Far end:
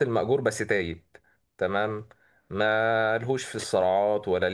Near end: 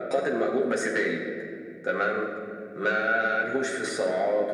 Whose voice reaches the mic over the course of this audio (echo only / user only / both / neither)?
echo only